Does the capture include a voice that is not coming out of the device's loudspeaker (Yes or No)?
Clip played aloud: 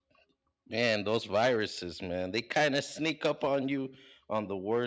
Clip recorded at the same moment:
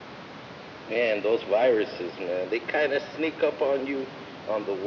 No